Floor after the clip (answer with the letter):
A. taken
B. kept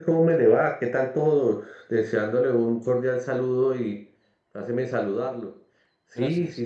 B